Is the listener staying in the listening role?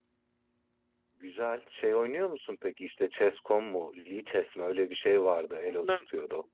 No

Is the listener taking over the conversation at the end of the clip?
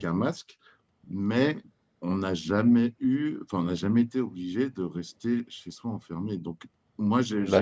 No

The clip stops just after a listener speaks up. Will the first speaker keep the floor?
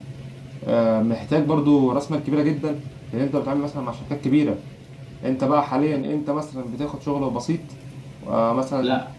No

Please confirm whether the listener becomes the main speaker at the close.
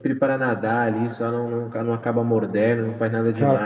No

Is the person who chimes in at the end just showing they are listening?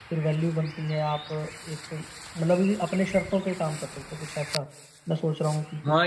No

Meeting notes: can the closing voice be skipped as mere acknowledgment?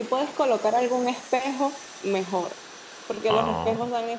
Yes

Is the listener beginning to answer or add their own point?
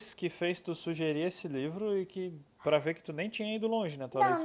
Yes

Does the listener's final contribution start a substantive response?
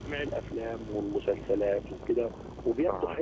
No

